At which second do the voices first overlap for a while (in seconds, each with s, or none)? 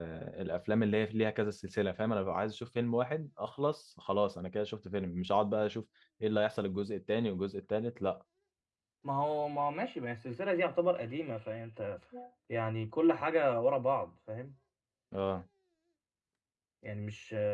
none